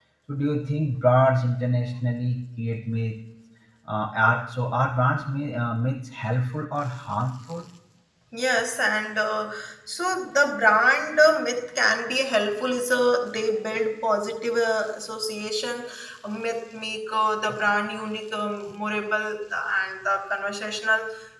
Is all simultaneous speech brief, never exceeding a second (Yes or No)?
Yes